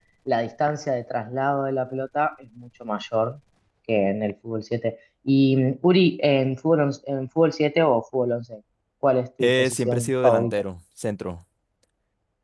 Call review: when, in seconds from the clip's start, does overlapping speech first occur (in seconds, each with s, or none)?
9.4 s